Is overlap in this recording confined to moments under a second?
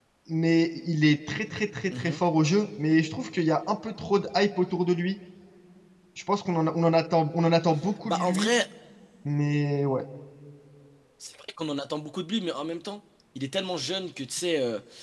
Yes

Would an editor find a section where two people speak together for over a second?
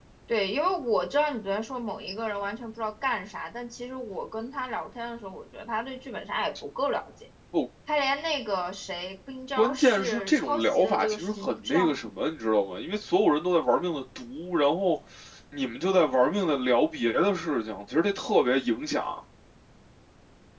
Yes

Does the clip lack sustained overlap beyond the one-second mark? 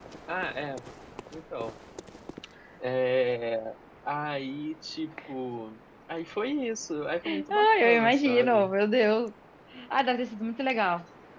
No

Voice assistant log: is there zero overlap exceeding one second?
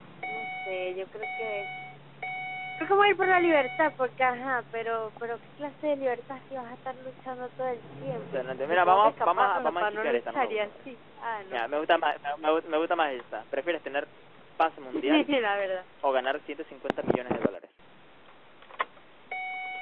No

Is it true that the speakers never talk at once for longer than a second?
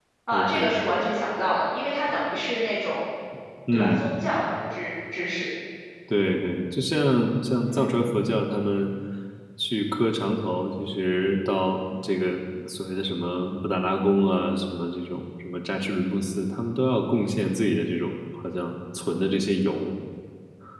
Yes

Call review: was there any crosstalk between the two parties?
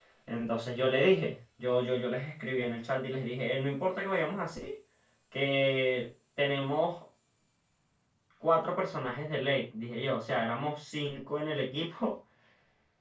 No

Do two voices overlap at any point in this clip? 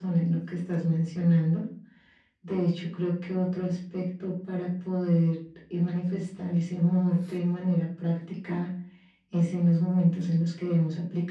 No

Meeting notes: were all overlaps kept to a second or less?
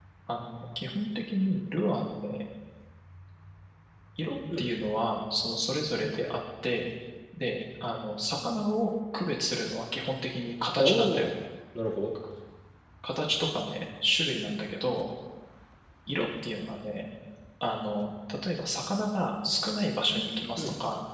Yes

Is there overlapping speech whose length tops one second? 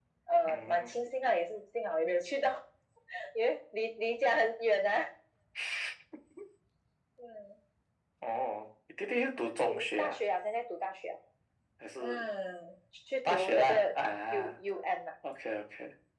Yes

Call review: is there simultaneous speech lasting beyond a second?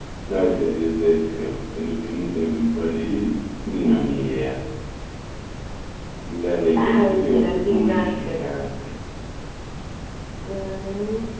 Yes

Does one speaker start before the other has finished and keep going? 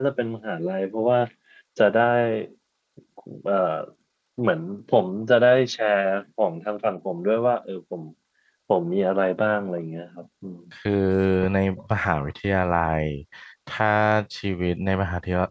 No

